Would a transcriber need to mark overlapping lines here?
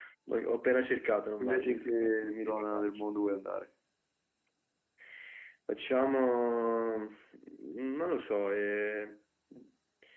Yes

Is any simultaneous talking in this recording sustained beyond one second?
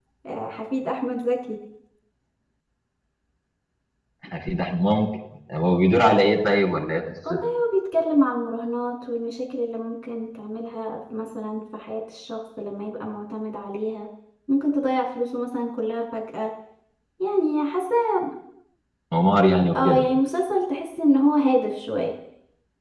No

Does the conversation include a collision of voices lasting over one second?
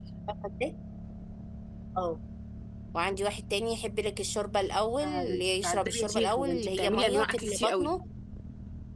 Yes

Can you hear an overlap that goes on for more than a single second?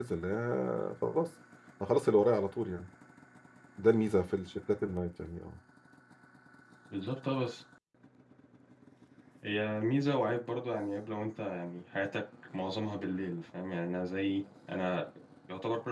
No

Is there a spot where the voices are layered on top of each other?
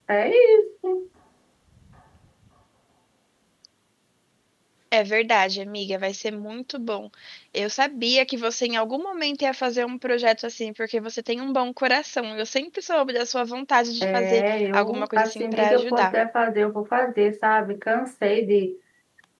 Yes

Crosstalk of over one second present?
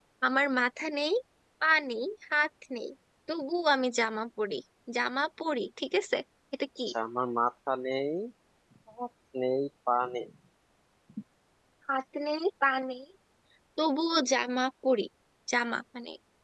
No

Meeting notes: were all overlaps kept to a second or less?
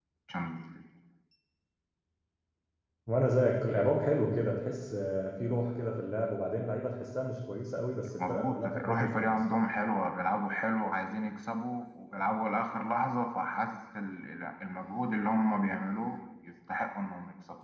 No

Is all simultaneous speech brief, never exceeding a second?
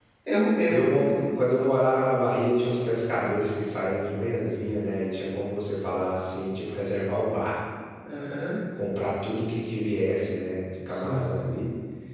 Yes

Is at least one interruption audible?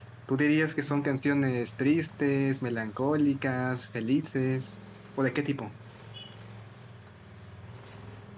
No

